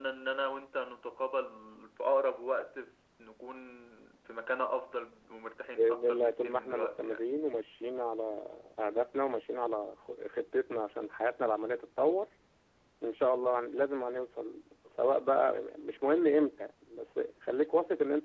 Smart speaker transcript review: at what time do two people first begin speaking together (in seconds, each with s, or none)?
5.8 s